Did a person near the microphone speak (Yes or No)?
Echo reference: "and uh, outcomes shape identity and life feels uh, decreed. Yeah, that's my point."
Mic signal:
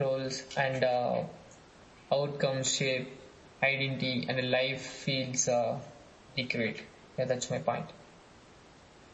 No